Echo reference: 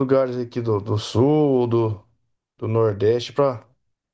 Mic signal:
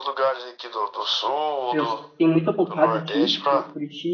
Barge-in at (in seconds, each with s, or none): 1.7 s